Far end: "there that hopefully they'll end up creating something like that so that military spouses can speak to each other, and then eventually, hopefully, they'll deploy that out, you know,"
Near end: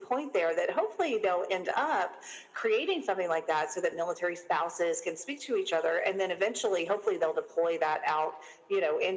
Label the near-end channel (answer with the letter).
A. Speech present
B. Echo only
B